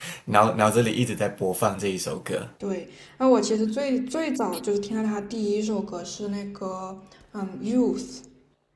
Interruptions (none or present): none